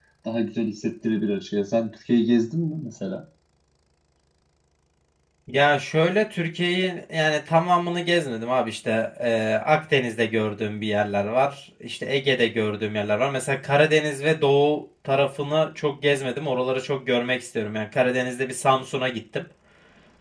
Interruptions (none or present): none